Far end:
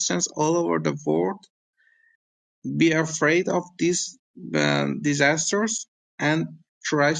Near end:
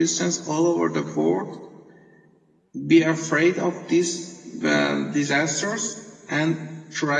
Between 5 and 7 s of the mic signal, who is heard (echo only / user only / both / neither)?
echo only